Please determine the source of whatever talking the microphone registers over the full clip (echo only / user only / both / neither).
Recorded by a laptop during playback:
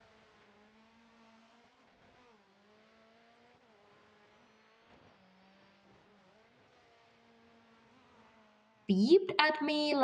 user only